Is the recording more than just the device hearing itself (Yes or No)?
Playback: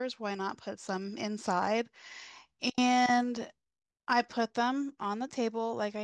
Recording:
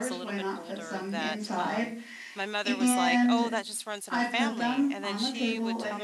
Yes